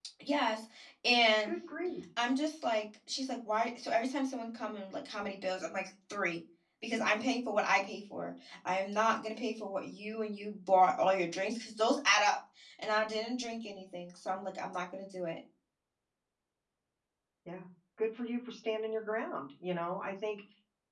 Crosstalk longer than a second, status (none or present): none